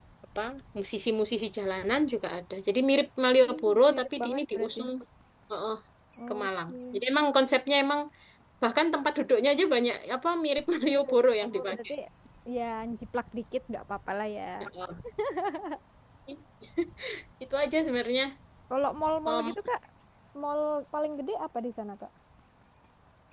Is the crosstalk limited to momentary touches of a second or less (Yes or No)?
No